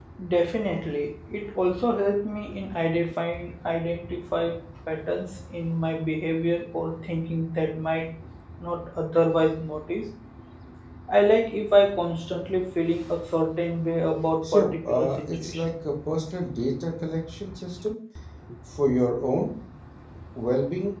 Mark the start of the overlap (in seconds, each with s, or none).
14.4 s